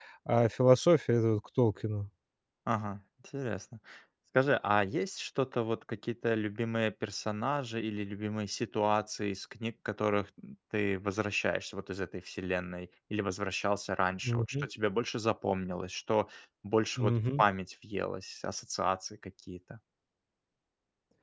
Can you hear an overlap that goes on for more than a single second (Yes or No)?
No